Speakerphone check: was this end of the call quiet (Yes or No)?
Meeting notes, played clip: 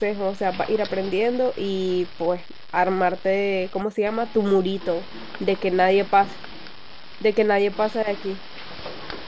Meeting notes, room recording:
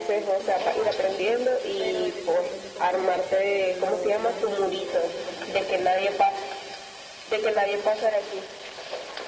No